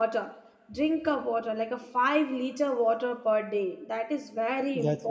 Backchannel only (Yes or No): No